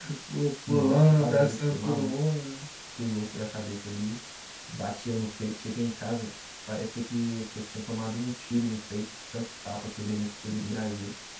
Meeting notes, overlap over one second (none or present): present